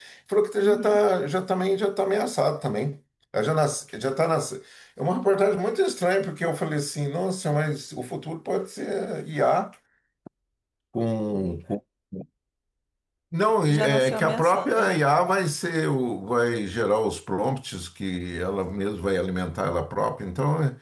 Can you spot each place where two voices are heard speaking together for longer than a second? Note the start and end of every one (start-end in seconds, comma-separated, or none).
13.7-15.0